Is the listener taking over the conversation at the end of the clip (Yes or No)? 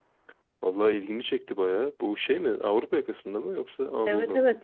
Yes